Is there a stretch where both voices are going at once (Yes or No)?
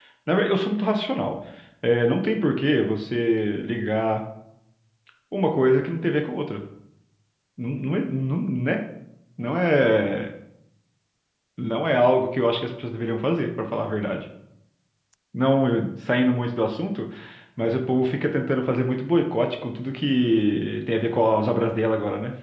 No